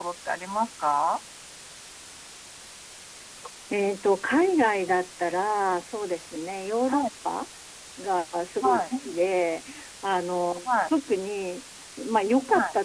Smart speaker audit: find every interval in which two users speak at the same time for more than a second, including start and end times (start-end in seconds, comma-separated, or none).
none